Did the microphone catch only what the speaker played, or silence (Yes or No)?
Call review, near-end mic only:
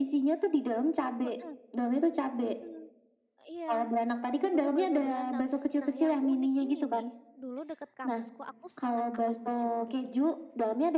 No